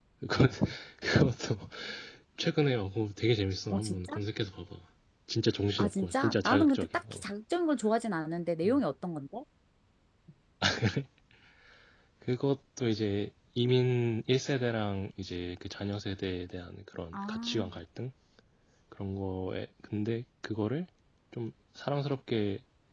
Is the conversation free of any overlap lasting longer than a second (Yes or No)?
No